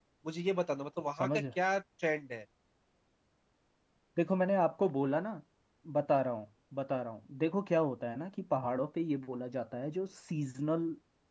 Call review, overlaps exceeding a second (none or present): none